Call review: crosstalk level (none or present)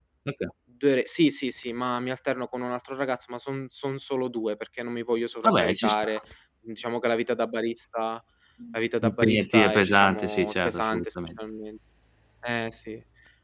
present